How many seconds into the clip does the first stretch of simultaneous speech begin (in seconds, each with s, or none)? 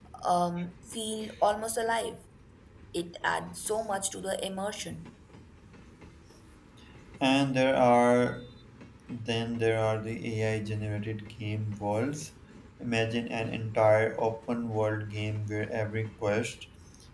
none